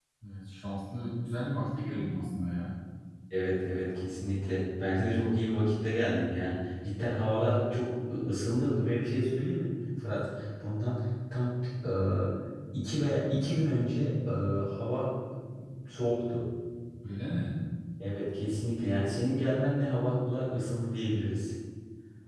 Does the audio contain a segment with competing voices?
No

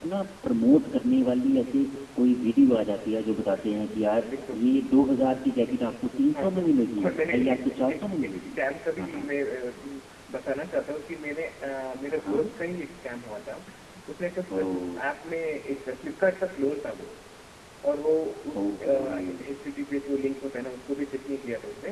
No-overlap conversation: No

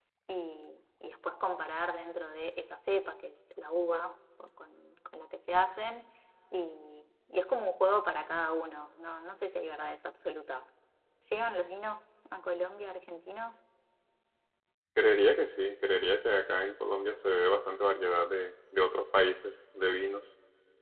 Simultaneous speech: No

